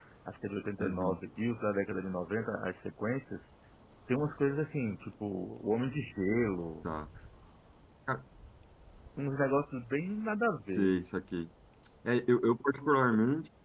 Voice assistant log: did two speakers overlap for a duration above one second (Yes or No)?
No